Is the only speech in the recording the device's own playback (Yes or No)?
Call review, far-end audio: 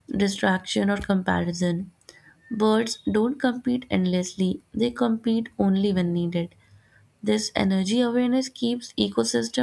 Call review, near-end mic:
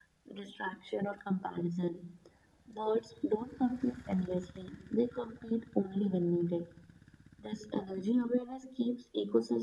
Yes